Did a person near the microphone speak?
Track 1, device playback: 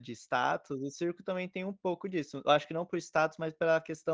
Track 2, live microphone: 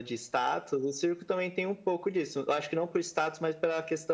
No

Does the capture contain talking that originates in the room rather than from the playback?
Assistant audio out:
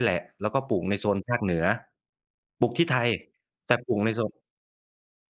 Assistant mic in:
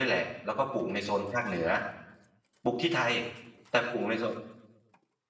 No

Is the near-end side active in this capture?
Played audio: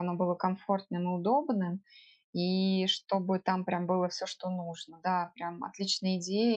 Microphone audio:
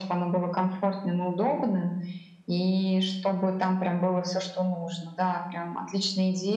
No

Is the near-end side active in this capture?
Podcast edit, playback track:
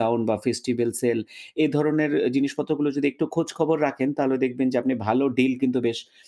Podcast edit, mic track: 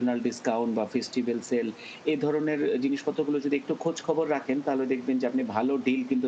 No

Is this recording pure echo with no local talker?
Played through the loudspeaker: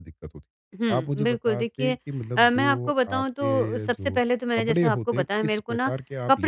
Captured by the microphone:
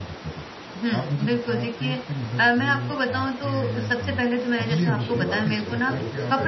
No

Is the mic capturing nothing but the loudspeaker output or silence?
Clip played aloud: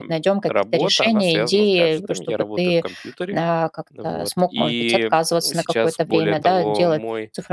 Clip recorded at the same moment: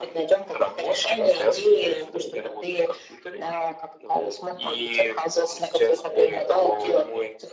Yes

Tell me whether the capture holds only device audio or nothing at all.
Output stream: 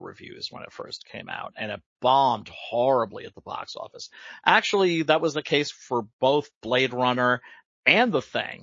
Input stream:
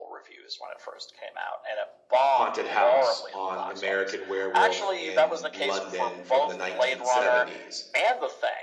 No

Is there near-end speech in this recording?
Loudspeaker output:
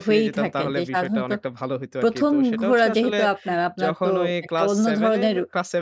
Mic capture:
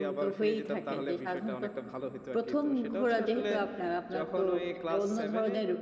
No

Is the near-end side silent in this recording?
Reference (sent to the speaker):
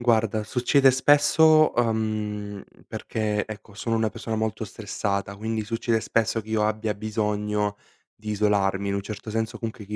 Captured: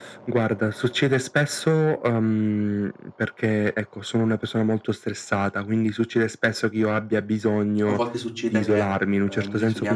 No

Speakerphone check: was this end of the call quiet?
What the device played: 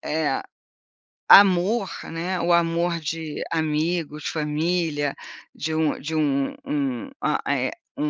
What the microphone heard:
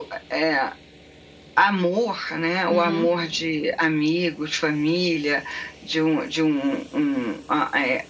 No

